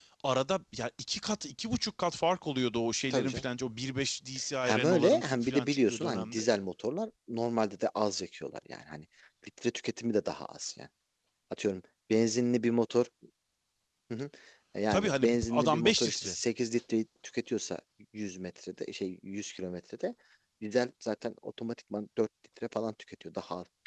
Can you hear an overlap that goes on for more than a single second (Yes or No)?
Yes